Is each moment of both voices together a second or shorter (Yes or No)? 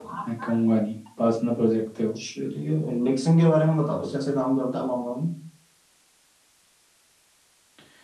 Yes